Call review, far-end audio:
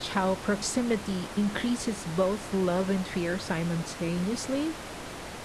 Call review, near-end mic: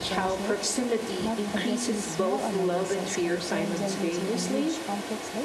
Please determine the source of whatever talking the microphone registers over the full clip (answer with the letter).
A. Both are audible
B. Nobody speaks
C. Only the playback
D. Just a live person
A